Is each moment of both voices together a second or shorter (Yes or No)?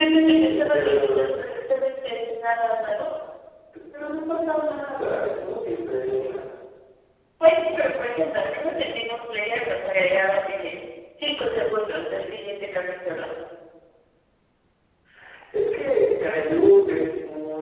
No